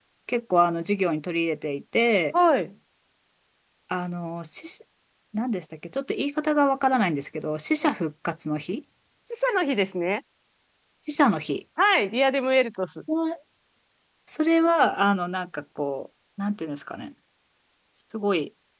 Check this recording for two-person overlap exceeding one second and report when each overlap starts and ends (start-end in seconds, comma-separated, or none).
none